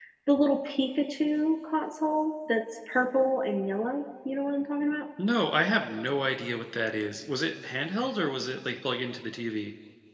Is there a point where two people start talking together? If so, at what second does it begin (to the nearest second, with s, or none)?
none